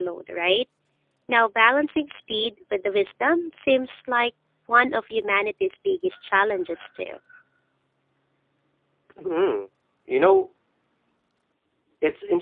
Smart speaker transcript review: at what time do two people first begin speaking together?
none

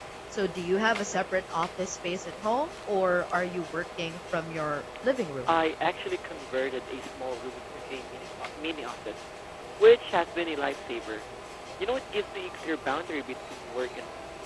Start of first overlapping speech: none

